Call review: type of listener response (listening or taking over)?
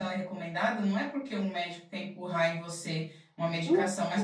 listening